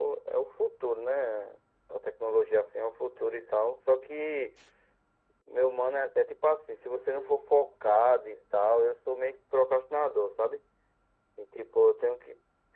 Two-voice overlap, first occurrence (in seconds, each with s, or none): none